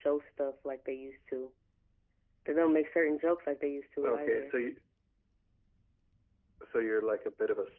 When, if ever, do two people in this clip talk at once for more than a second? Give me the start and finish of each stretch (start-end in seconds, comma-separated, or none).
none